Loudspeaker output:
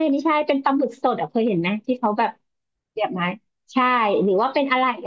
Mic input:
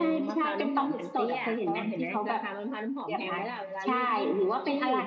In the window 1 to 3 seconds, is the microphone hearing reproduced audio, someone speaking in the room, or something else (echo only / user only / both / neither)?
both